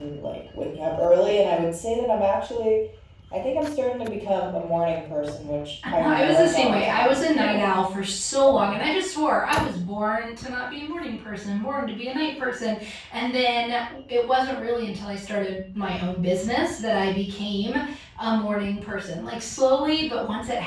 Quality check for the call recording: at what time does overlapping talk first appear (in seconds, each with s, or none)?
6.0 s